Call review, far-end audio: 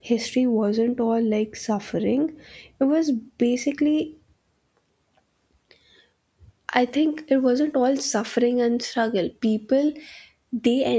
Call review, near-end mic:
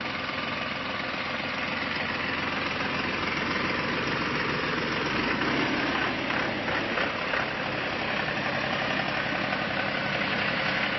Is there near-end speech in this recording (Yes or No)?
No